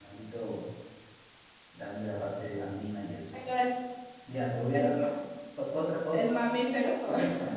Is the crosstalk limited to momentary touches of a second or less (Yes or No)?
Yes